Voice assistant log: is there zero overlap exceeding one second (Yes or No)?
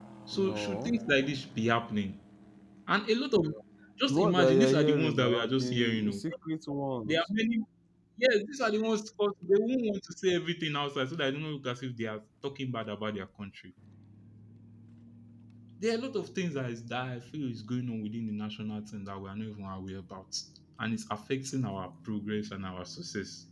No